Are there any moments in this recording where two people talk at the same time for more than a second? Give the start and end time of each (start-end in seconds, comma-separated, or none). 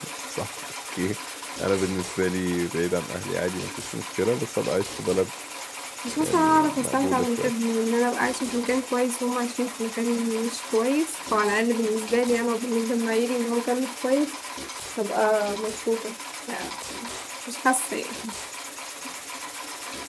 6.2-7.5